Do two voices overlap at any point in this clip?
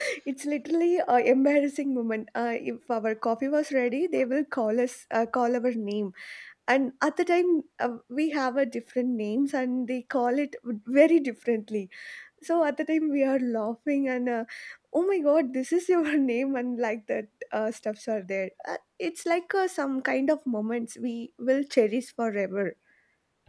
No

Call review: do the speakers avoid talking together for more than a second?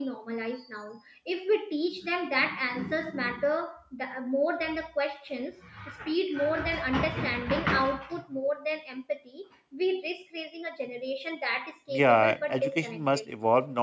No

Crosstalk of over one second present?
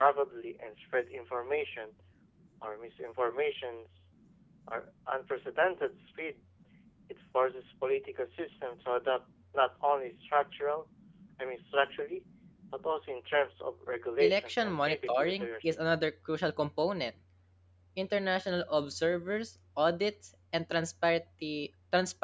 Yes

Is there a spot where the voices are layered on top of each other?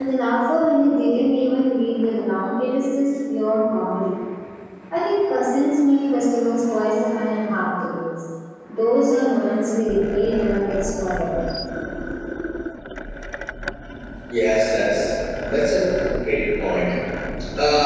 No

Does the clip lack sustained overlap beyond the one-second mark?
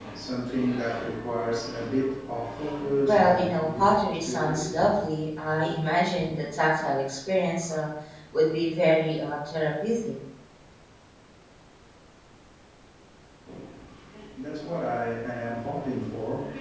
No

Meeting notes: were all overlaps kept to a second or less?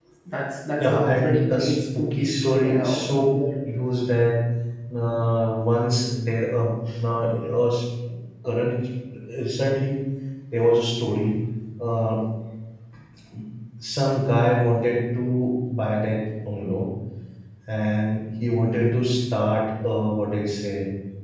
No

